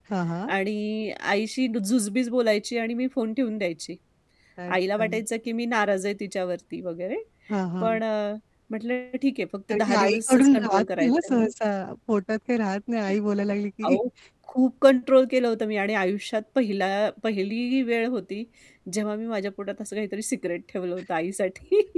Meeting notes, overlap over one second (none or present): present